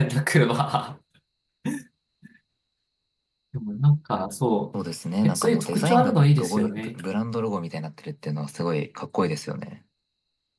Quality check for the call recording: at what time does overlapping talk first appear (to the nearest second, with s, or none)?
5 s